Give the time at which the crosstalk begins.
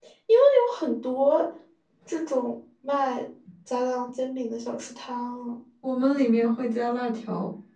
none

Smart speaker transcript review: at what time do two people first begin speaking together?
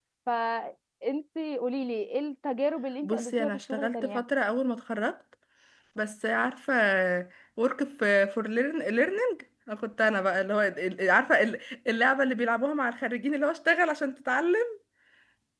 3.0 s

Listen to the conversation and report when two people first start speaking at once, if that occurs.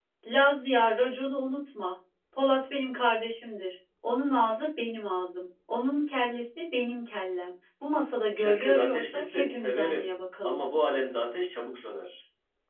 8.4 s

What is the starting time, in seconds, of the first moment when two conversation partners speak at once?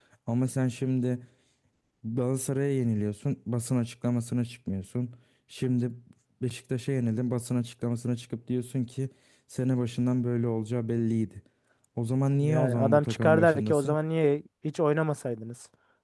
12.3 s

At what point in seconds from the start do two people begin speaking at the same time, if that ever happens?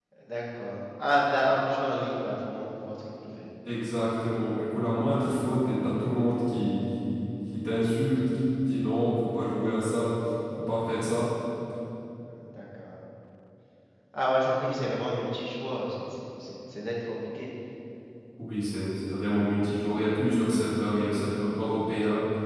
none

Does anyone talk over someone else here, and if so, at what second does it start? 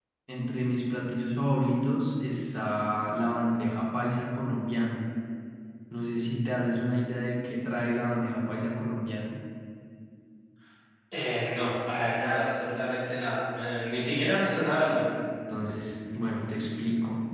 none

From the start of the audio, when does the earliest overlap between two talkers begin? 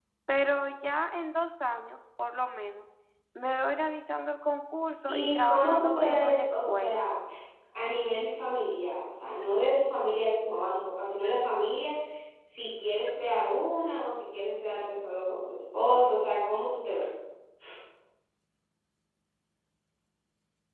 5.1 s

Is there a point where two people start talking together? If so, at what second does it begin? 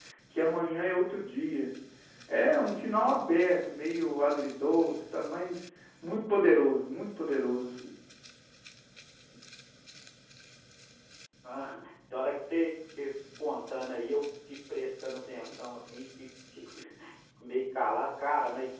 none

